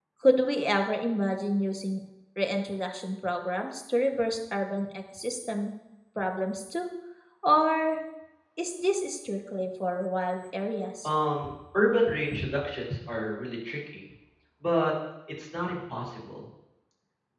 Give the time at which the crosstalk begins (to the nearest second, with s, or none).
none